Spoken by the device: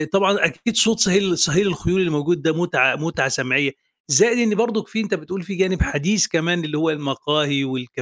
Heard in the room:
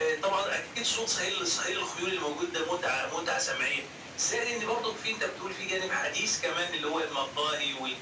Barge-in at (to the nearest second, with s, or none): none